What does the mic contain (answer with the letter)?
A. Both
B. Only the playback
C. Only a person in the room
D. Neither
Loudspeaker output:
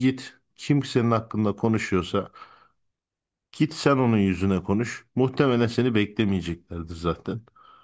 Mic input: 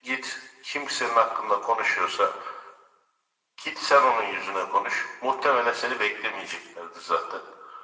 B